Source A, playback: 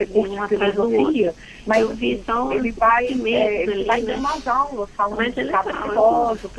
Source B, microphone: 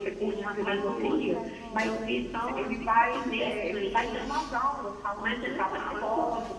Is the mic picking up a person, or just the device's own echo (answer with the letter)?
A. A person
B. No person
A